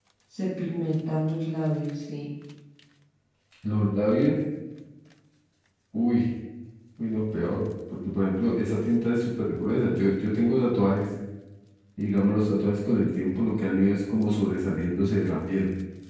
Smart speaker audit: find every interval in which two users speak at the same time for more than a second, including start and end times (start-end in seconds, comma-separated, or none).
none